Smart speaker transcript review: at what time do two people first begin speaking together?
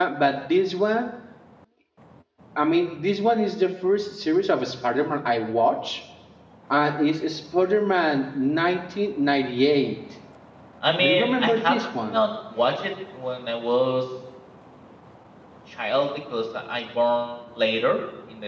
11.0 s

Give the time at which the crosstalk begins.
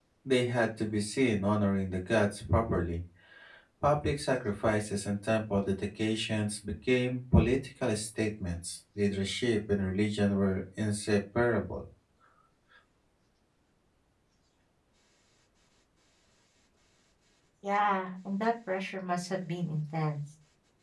none

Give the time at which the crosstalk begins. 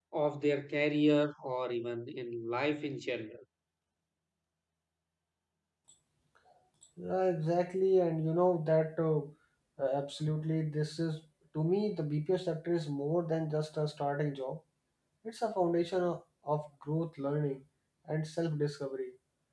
none

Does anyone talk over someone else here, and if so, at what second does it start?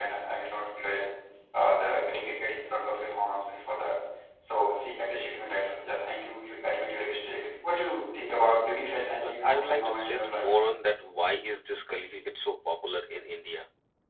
9.2 s

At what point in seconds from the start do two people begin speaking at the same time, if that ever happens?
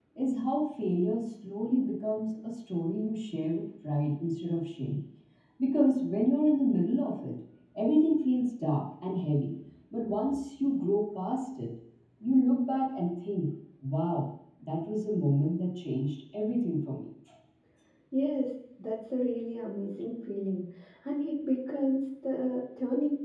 none

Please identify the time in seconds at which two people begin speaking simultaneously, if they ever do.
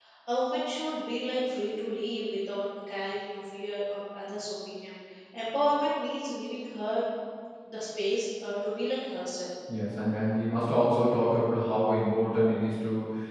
none

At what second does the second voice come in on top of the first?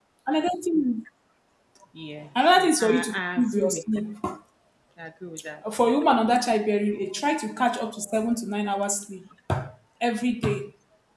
2.6 s

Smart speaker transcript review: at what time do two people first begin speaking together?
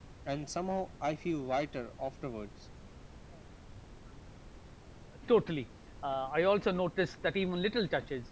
none

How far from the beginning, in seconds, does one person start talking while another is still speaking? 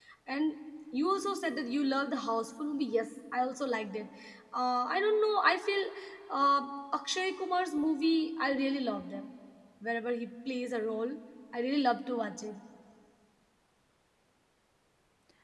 none

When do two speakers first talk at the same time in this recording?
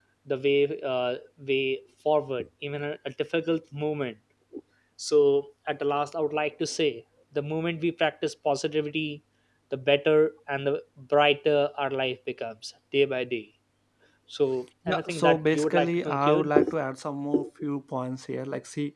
14.9 s

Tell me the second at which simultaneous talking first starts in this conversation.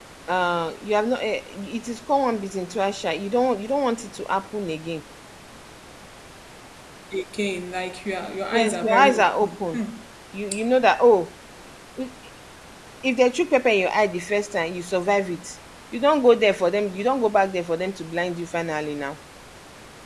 8.5 s

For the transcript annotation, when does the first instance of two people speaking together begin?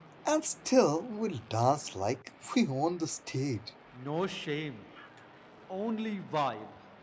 none

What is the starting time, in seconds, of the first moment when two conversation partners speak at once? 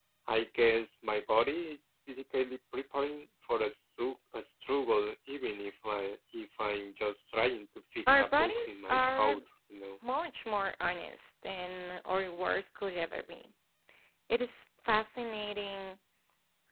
8.1 s

